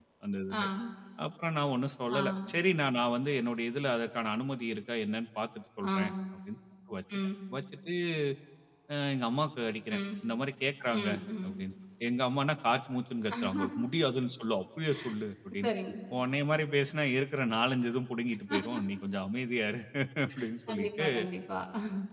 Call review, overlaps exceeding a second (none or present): none